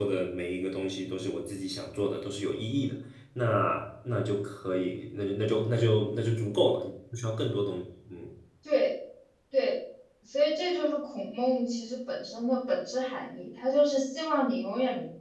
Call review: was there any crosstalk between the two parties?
No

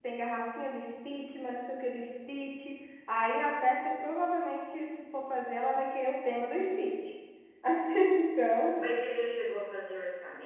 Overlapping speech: No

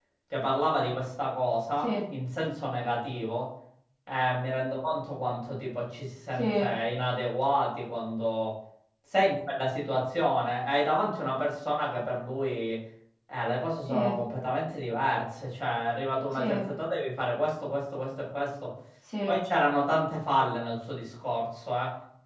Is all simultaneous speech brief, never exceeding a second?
Yes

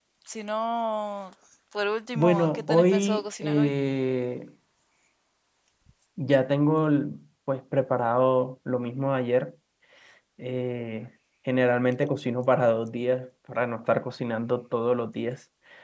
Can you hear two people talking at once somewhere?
Yes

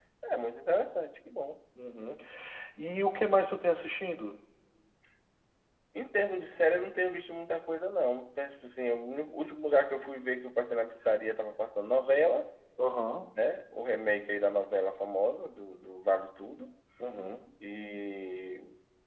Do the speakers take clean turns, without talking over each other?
Yes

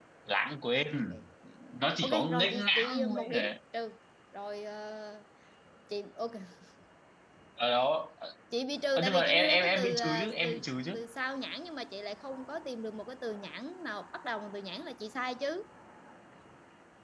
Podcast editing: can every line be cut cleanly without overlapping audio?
No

